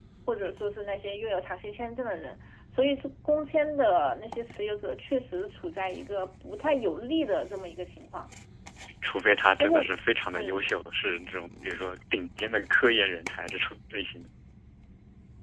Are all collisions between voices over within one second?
Yes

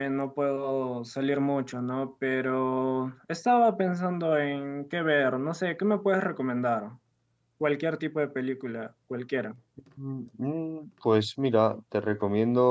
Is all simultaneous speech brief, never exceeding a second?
Yes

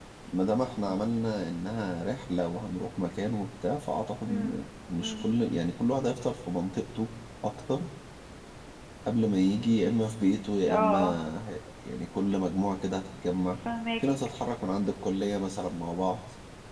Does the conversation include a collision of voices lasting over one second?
No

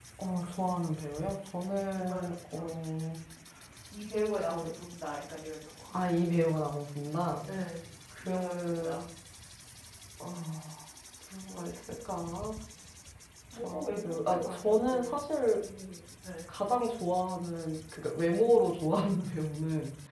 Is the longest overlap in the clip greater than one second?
Yes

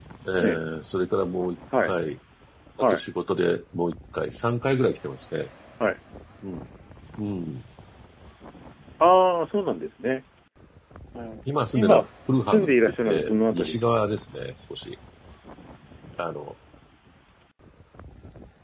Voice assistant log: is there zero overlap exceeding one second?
No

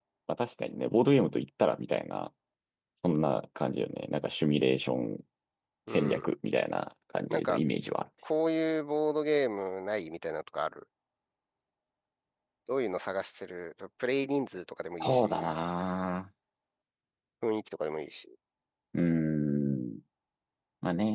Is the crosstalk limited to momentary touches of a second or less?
Yes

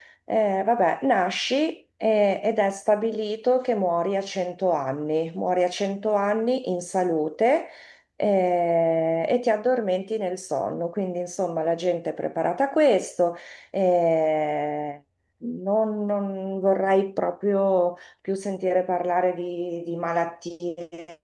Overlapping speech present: No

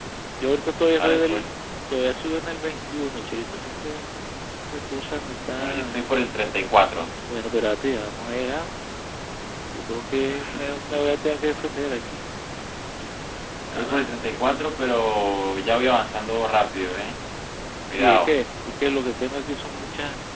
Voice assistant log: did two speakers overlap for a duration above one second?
No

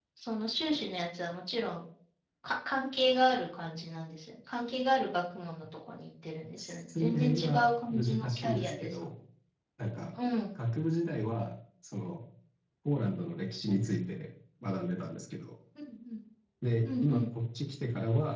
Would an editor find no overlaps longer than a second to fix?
No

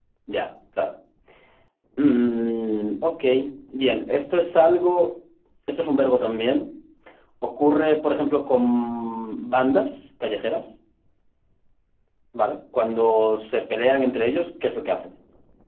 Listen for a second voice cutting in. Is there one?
No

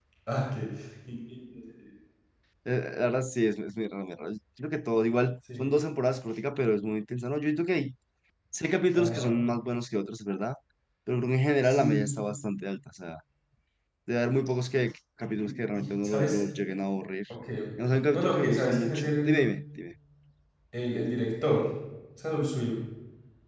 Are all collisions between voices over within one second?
No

